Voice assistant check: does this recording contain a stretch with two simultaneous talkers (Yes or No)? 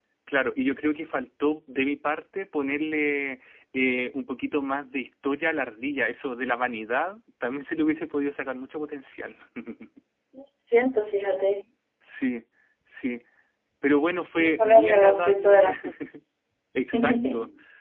Yes